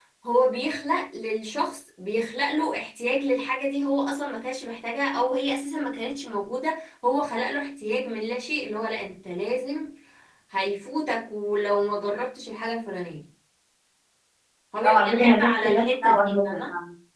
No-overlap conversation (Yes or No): No